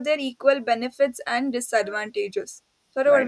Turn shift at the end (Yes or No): Yes